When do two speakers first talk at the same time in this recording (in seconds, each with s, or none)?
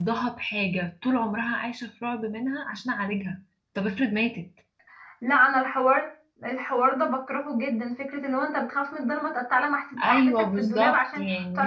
10.0 s